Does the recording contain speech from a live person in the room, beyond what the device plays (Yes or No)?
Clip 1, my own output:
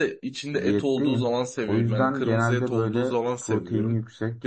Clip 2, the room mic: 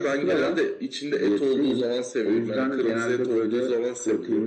No